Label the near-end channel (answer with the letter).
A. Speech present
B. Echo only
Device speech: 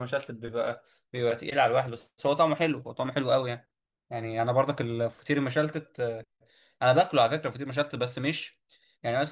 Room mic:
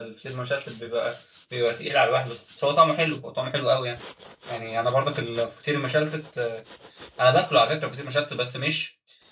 B